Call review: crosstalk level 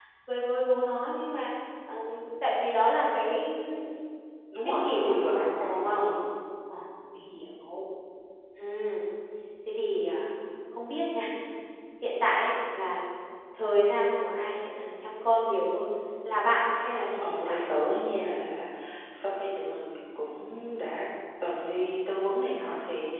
present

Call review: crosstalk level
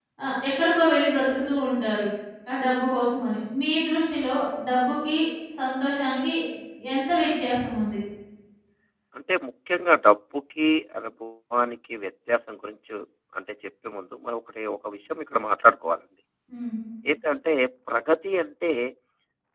none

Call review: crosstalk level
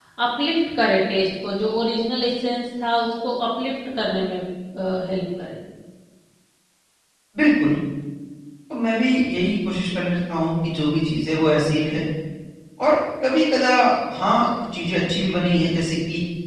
none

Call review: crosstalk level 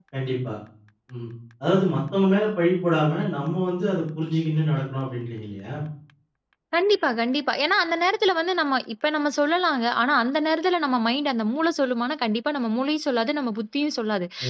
none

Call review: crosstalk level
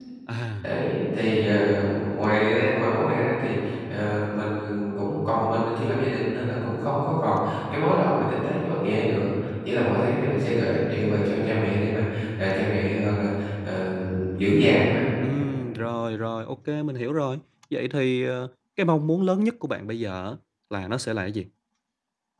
none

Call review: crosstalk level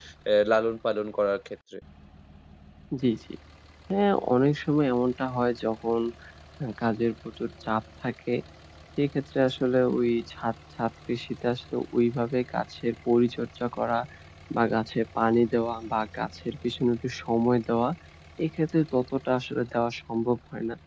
none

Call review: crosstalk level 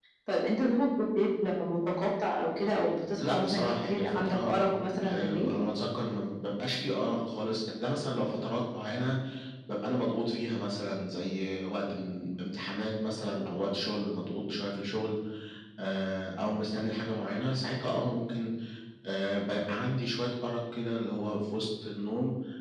present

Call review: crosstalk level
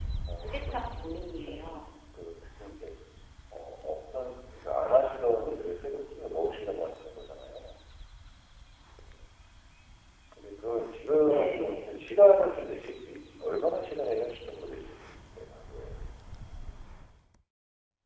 present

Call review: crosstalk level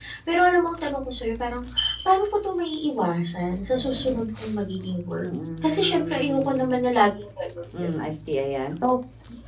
present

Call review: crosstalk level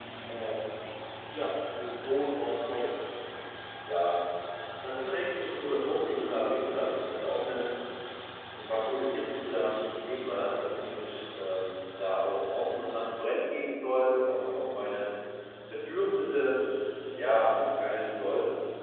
none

